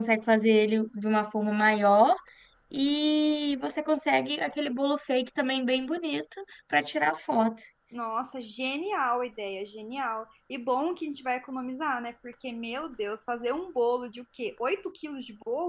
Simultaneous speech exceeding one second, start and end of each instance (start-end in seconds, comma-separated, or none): none